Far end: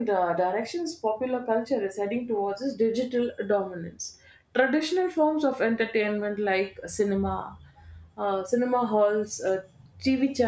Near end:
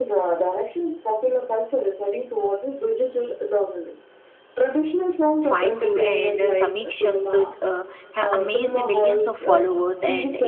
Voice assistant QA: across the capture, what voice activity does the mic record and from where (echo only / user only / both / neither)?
both